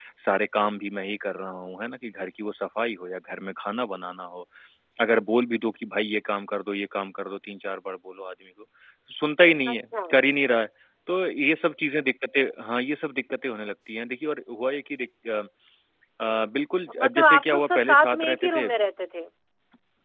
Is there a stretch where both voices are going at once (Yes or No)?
Yes